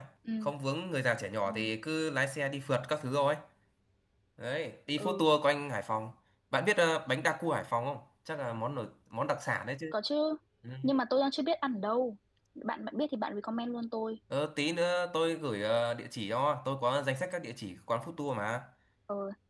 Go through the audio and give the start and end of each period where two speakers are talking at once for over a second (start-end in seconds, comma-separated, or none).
none